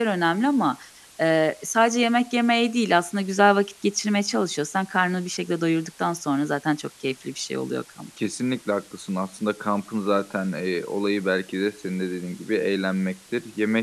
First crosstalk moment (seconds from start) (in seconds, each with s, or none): none